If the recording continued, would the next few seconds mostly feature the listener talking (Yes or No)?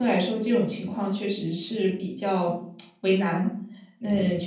No